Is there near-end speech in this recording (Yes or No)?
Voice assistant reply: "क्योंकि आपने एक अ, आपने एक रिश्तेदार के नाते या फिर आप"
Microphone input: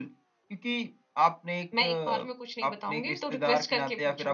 Yes